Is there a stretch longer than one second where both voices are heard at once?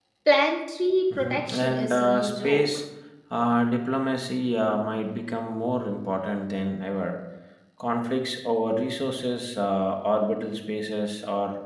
Yes, from 1.2 s

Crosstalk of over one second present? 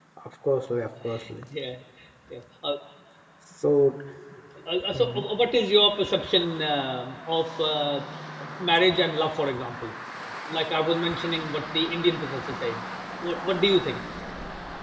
No

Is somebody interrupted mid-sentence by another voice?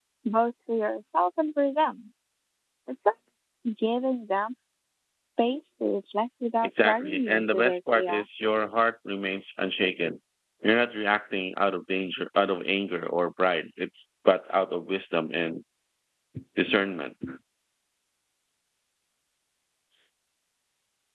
Yes, from 6.6 s

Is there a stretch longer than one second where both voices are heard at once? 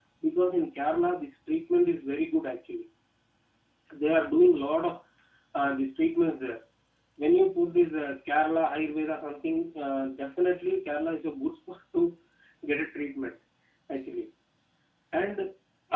No

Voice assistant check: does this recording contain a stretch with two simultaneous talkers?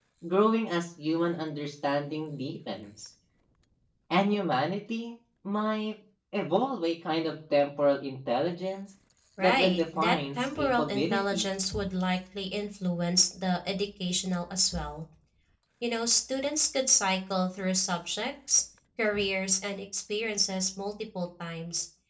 Yes, from 9.4 s

